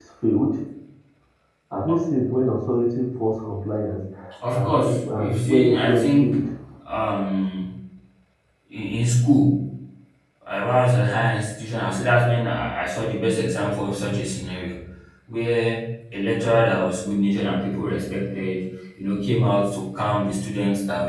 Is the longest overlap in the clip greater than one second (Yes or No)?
Yes